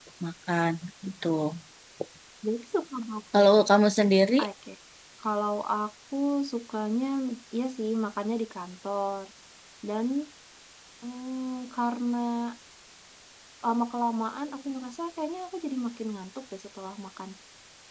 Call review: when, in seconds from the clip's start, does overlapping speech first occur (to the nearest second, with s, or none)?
none